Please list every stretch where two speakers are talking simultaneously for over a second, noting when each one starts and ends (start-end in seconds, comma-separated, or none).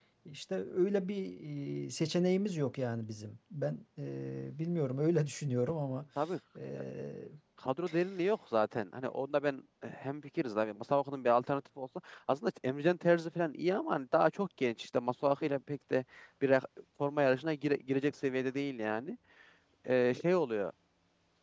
none